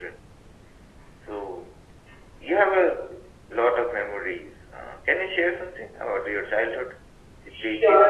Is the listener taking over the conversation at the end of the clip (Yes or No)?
Yes